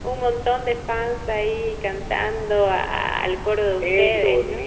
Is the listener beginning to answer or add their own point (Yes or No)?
Yes